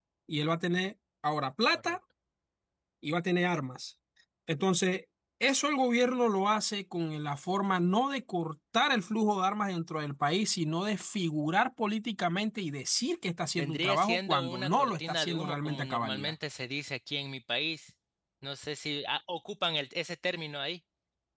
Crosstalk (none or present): present